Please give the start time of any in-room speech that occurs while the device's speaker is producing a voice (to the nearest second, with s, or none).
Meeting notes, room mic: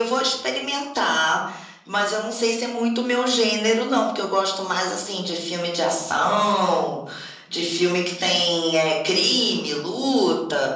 none